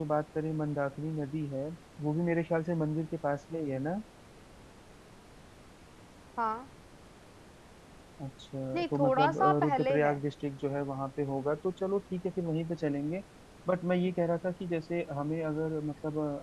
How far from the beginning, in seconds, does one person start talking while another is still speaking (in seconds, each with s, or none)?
8.8 s